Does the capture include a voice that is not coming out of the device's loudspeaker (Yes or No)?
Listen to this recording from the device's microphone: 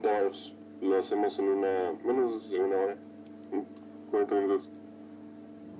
No